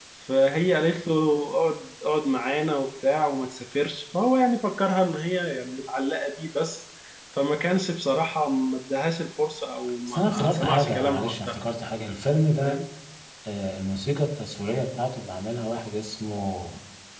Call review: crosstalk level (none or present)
present